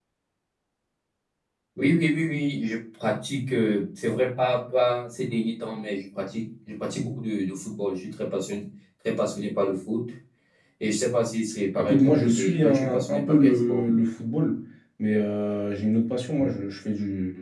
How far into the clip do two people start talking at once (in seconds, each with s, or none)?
11.8 s